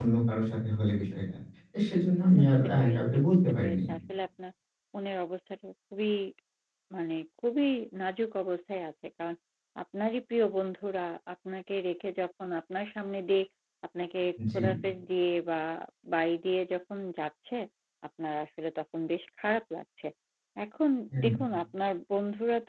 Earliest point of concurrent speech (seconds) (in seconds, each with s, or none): 2.4 s